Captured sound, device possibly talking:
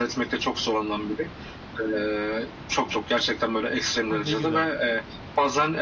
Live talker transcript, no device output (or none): Ah, ne güzel.